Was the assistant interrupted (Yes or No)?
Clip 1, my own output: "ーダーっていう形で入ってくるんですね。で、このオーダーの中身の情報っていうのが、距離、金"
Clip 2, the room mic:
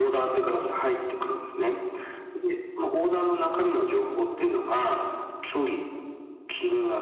No